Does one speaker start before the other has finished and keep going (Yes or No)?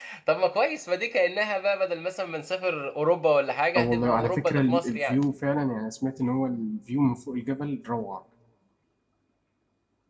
Yes